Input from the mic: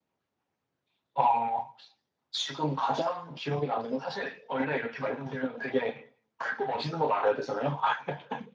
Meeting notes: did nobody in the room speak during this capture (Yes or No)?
Yes